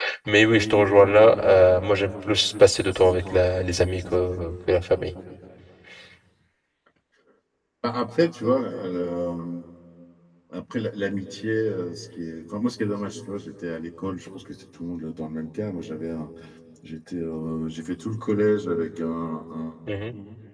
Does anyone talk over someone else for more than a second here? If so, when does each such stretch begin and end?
none

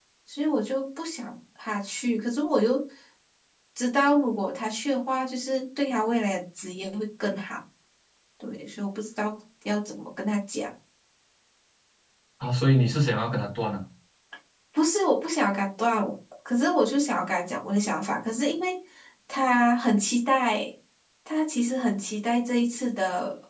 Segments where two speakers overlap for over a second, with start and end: none

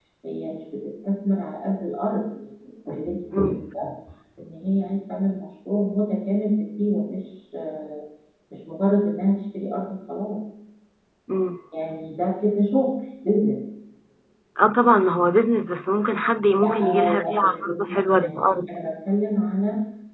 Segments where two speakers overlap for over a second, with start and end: 16.6-18.7

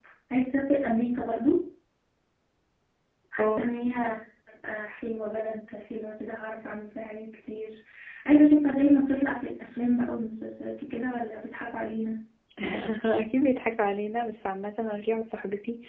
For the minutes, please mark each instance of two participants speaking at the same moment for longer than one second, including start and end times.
none

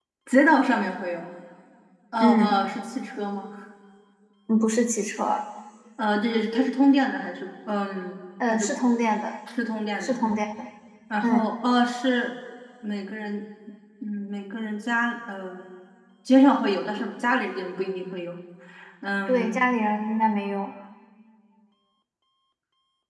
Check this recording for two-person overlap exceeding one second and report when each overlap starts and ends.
none

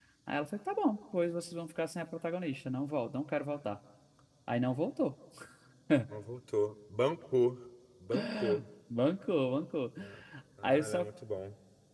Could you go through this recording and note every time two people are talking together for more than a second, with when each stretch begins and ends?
none

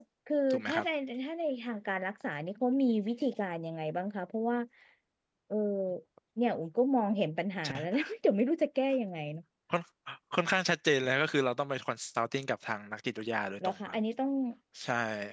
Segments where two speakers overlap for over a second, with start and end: none

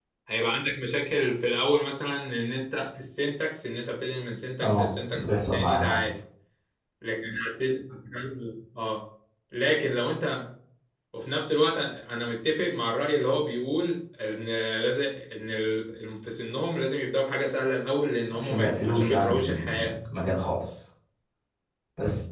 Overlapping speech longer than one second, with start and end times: 4.6-6.0, 18.3-20.0

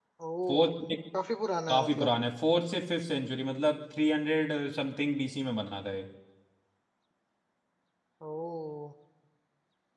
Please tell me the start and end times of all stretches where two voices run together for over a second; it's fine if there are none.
none

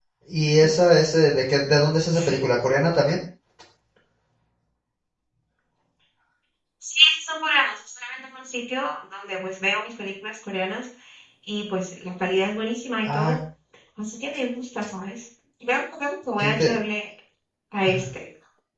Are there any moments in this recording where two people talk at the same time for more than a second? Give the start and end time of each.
none

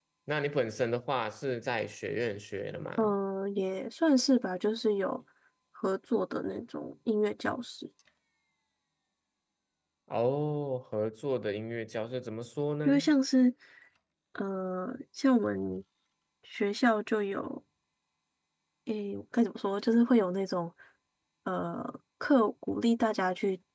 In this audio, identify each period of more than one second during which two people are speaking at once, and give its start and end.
none

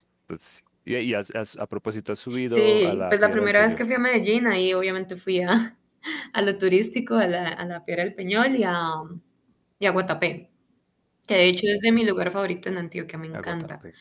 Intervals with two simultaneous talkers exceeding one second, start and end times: 2.5-3.8

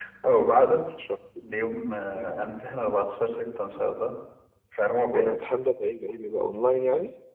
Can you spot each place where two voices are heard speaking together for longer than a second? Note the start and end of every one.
none

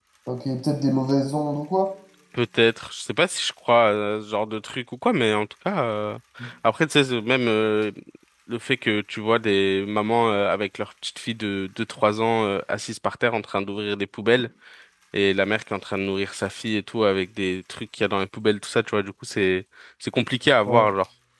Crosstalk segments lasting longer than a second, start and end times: none

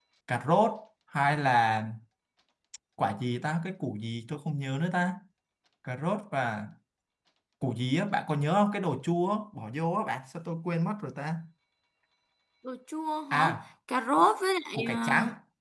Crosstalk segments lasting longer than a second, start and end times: none

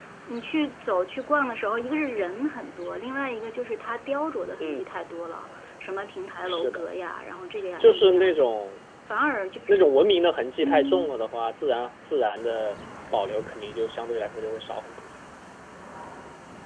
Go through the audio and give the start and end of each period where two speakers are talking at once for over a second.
none

